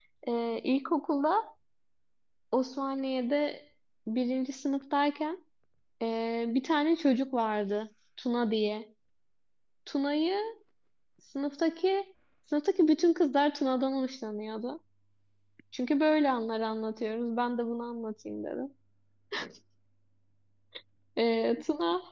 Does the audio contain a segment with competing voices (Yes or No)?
No